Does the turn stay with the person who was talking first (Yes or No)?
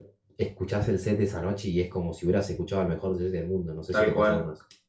No